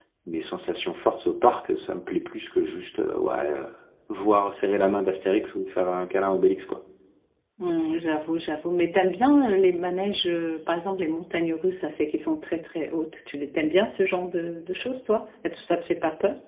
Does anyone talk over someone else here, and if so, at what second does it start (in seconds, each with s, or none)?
none